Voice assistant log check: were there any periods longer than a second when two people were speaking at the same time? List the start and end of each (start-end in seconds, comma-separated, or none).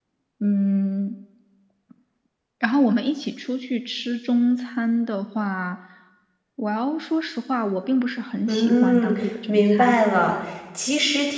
8.5-9.9